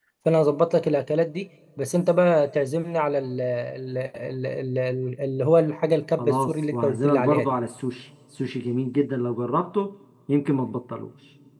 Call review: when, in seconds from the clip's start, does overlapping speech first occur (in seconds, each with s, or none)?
6.2 s